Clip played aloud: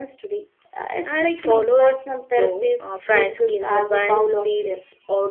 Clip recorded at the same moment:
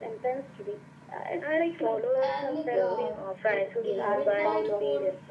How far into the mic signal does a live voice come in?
2 s

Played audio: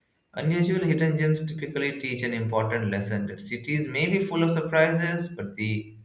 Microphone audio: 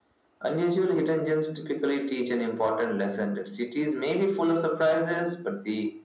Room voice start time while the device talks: none

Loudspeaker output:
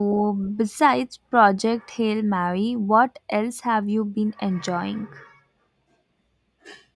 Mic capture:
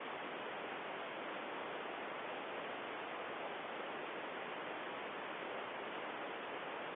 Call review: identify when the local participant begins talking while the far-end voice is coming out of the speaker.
none

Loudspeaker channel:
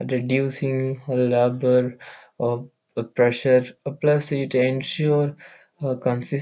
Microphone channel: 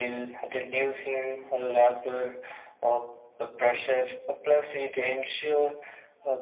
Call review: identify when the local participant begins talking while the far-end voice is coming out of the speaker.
none

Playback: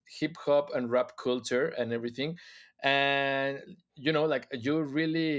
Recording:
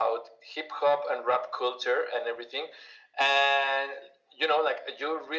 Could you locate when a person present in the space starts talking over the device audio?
none

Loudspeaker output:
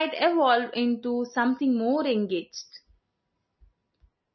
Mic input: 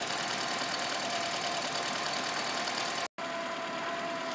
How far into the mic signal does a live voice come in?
none

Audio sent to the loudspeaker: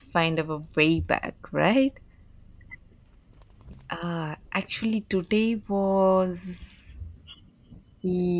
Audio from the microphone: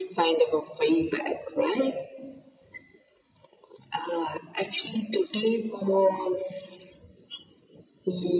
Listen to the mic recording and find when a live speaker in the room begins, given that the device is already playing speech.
none

